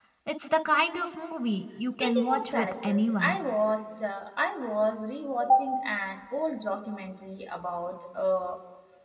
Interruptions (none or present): present